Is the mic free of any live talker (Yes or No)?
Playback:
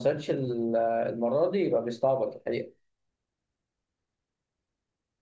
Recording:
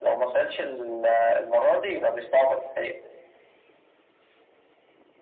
Yes